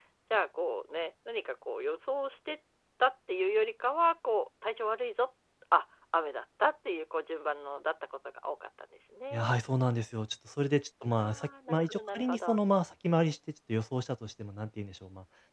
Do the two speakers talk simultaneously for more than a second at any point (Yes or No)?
Yes